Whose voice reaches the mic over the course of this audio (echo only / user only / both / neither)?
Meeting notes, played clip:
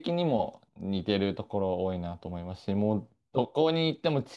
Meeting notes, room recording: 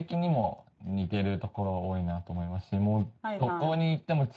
both